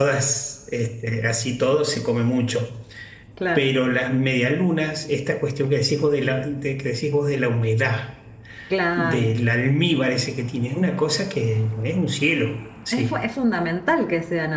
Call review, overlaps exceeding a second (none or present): none